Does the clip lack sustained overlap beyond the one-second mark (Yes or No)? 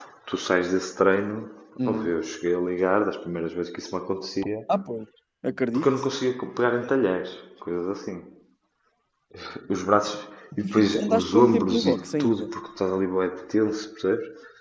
No